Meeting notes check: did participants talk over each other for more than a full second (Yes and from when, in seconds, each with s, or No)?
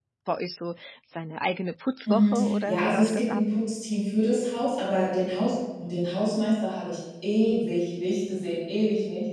Yes, from 2.1 s